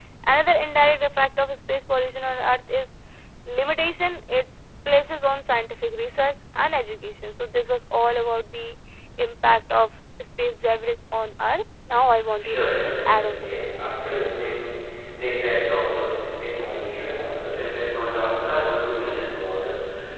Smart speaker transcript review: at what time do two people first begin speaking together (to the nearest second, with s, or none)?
12 s